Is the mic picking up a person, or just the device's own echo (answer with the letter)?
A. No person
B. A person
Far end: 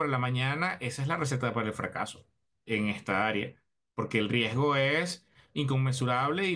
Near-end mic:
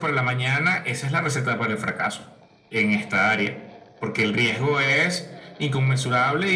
A